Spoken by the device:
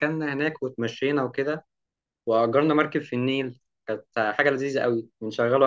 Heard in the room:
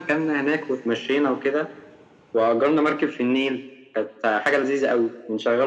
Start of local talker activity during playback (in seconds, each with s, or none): none